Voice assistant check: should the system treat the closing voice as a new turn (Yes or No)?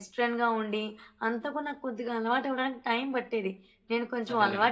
No